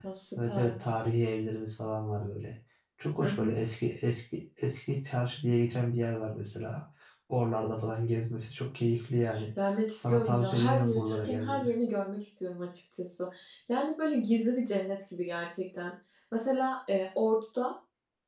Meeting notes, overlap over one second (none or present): present